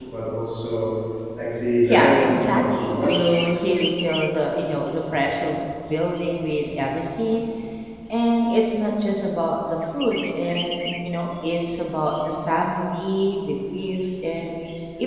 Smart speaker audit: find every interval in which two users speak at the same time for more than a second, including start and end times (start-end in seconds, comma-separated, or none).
1.9-3.4